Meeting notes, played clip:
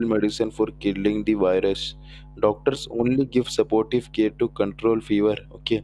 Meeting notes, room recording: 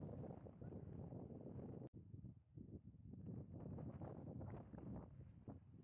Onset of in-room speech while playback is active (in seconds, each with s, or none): none